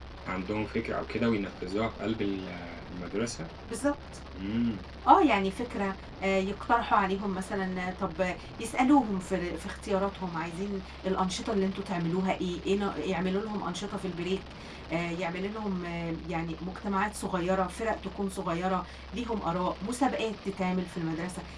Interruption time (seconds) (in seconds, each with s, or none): none